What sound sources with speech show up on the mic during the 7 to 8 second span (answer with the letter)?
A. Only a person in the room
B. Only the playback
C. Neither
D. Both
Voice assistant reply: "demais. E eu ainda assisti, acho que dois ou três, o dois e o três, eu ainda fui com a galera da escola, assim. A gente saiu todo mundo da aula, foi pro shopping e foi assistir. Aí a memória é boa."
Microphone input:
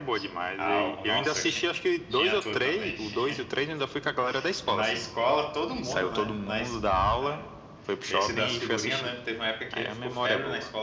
D